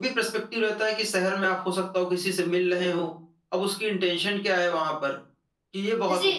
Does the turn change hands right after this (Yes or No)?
Yes